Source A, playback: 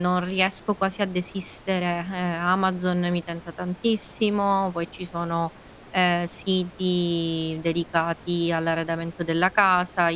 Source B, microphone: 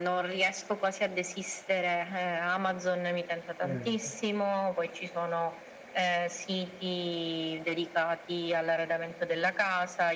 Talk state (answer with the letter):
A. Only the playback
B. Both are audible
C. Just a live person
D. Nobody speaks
B